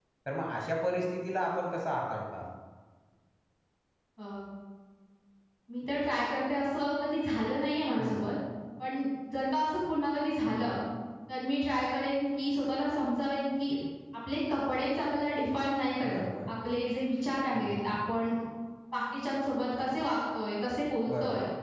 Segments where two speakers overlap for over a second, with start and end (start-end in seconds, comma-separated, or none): none